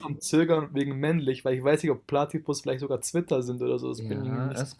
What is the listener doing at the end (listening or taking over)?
taking over